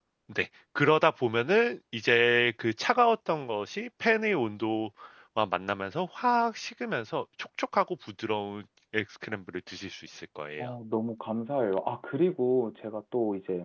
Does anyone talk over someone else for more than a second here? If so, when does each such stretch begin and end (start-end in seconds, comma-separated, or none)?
none